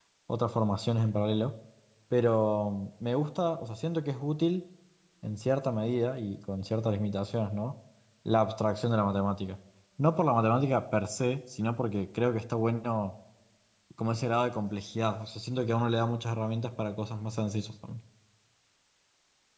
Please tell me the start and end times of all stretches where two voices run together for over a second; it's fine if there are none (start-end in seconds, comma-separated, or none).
none